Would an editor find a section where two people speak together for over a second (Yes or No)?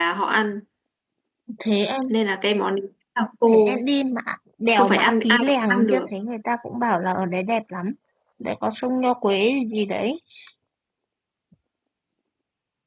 Yes